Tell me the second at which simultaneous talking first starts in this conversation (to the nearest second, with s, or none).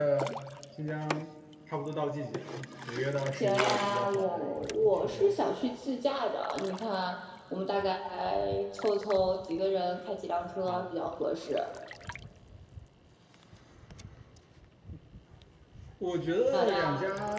4 s